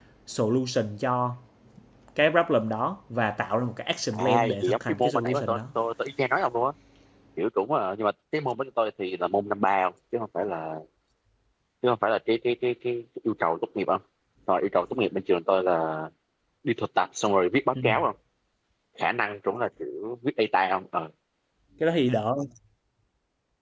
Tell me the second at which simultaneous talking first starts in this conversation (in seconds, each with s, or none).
4.1 s